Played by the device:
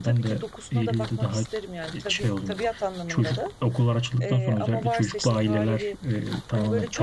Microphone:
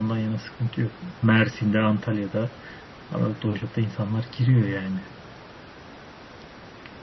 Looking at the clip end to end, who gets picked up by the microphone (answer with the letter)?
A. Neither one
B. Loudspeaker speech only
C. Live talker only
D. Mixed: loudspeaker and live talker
C